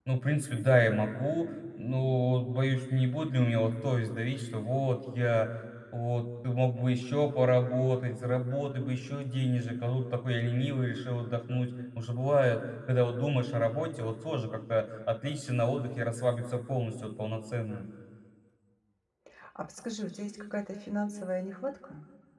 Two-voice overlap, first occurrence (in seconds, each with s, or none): none